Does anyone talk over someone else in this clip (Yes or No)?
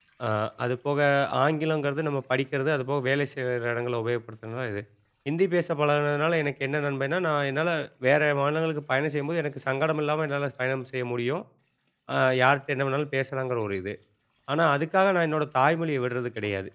No